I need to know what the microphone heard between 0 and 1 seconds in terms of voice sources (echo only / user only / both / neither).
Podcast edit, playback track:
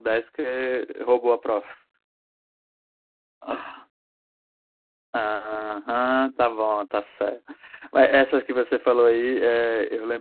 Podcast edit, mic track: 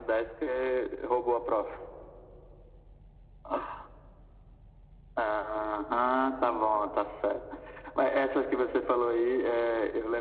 echo only